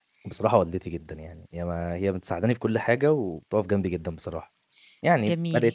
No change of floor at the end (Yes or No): No